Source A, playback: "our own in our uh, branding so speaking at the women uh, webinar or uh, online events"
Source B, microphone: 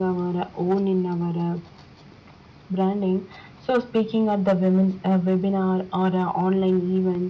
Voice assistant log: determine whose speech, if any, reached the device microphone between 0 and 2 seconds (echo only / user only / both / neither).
echo only